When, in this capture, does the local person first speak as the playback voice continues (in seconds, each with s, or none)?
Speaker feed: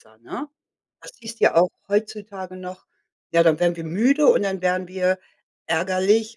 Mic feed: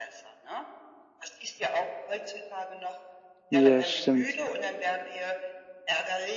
3.5 s